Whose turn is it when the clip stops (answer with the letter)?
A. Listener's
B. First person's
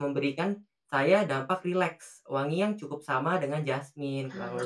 A